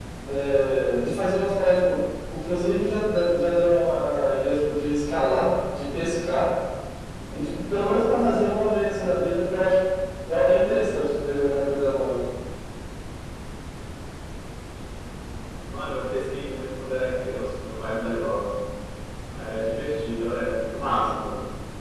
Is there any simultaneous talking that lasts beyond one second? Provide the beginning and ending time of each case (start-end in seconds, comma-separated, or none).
none